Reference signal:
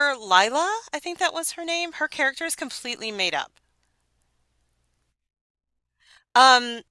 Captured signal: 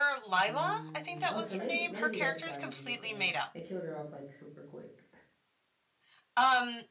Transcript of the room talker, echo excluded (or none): Mm, oh, so maybe maybe that's why they did that. They killed her off like super quick.